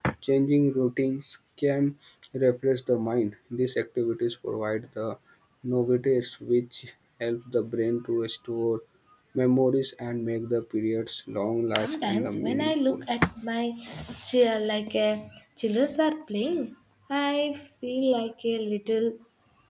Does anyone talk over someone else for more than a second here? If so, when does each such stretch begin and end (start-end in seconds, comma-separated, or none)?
11.8-13.0